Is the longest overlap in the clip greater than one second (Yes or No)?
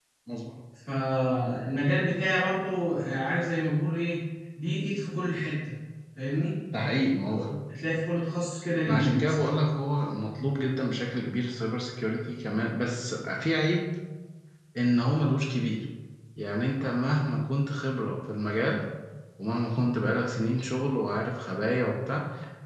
No